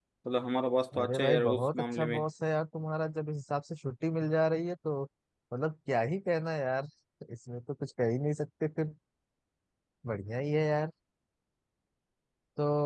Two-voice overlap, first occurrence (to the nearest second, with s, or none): 1 s